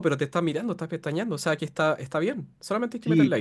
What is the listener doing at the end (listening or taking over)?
taking over